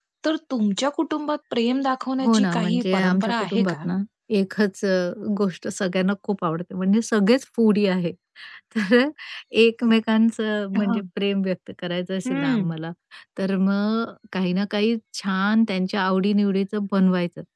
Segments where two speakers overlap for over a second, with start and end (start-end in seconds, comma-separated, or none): 2.2-3.9